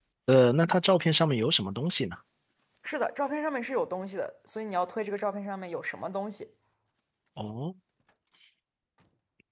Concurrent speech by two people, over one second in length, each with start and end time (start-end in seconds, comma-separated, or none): none